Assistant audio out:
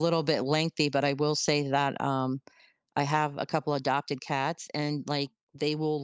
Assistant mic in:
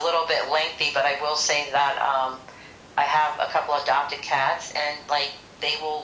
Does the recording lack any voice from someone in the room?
Yes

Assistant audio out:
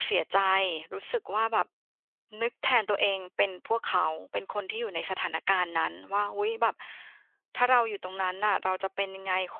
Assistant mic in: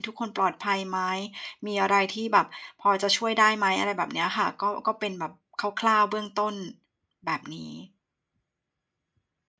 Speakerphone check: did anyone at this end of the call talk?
Yes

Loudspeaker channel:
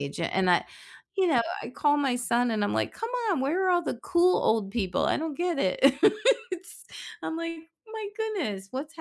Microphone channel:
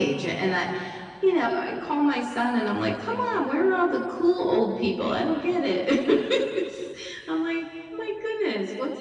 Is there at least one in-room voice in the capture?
No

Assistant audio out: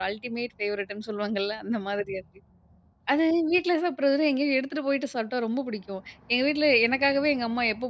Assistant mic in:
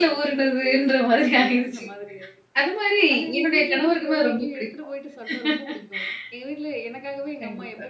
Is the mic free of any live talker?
No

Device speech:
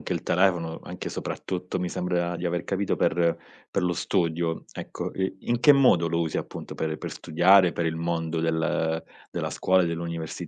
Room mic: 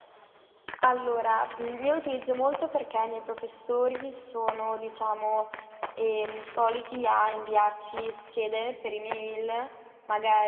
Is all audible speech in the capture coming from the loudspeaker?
No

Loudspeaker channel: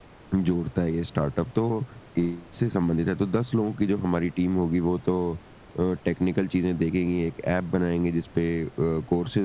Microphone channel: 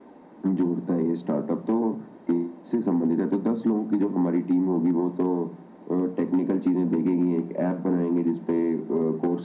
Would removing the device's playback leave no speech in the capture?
Yes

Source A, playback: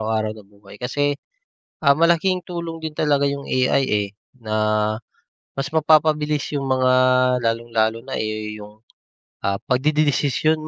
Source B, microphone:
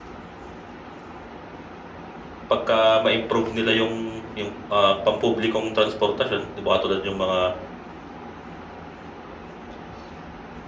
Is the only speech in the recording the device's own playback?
No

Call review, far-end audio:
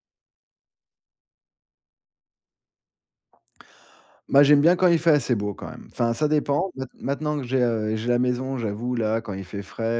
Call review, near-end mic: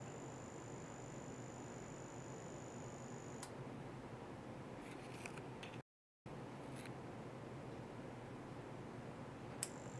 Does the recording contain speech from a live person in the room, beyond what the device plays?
No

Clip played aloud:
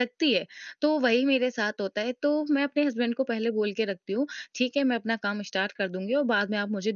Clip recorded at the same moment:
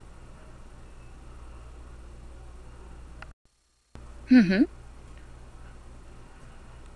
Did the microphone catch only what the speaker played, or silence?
No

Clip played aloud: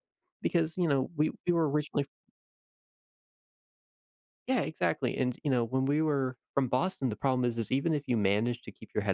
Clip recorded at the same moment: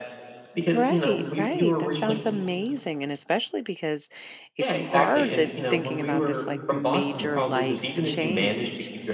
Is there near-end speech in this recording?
Yes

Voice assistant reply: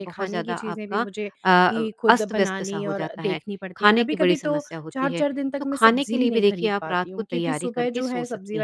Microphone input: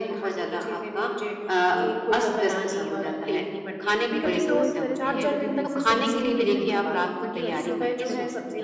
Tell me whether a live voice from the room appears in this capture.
Yes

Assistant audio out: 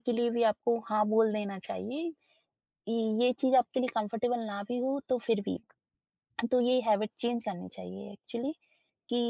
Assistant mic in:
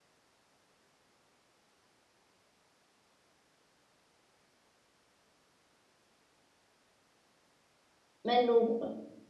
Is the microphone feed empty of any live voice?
No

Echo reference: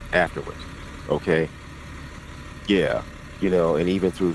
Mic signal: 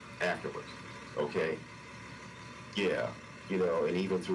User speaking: No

